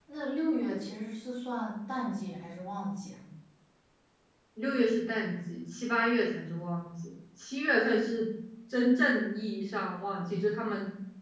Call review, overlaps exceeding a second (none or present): none